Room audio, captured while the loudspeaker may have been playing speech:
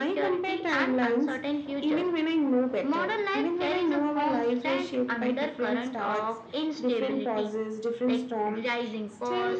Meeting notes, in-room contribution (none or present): none